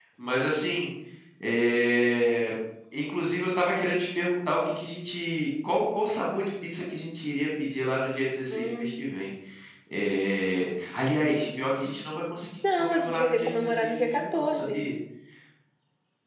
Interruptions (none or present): present